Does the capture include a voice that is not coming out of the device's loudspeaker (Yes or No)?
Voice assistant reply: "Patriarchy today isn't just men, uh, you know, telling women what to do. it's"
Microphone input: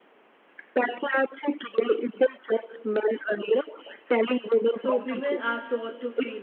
Yes